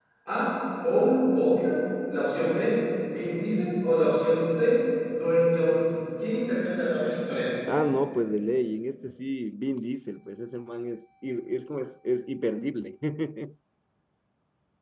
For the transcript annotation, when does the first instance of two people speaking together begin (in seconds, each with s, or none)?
none